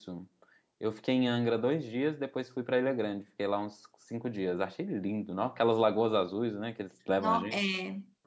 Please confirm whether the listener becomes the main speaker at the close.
Yes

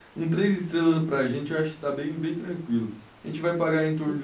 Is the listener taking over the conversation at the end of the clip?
No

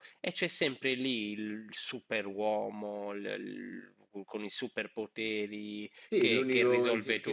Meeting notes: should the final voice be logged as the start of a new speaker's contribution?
Yes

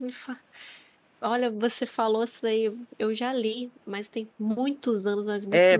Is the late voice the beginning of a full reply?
Yes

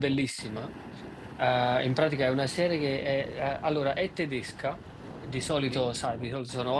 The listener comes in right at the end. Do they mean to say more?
No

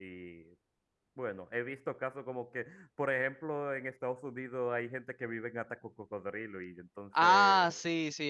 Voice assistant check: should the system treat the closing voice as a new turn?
Yes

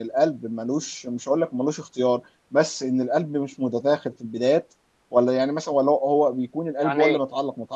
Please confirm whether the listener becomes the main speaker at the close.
No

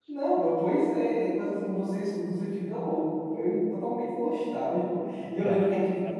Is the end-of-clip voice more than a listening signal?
No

